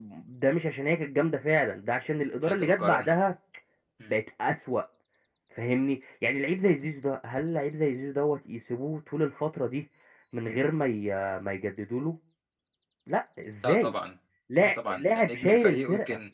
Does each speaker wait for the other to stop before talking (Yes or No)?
No